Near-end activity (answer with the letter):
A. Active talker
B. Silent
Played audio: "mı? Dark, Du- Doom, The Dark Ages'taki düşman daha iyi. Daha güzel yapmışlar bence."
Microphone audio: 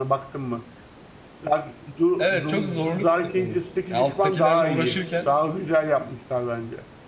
A